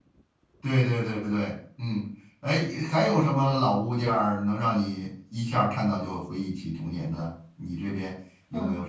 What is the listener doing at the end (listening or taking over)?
taking over